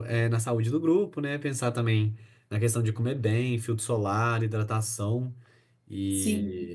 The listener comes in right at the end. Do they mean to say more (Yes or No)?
Yes